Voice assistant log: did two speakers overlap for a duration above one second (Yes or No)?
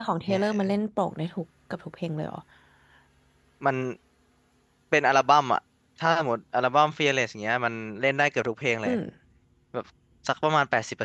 No